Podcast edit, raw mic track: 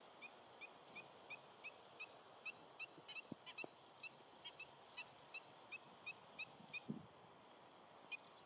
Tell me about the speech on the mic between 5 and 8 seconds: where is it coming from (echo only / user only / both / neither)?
neither